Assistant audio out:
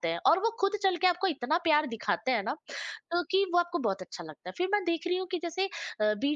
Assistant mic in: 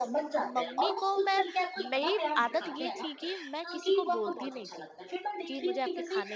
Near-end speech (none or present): present